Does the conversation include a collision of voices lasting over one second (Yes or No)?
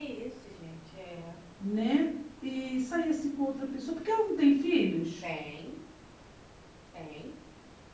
No